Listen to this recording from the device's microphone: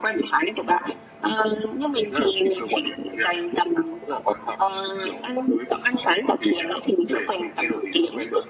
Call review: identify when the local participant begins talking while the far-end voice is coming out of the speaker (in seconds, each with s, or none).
none